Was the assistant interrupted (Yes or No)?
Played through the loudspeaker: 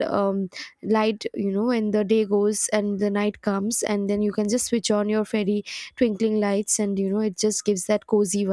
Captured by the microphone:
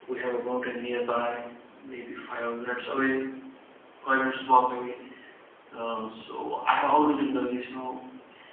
Yes